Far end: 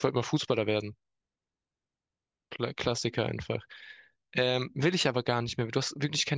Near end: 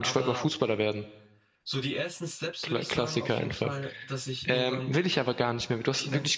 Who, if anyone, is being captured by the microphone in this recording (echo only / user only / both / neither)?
both